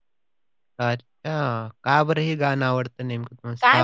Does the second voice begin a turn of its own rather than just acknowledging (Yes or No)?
Yes